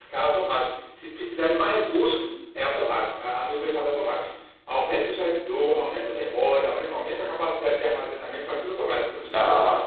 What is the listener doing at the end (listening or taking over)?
taking over